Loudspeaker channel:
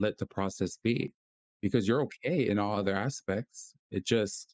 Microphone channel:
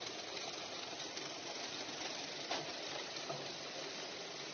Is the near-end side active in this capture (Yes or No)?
No